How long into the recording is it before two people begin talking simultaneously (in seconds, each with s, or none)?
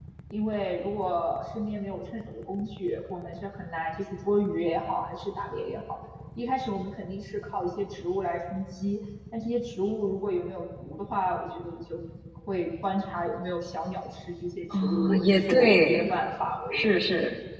14.8 s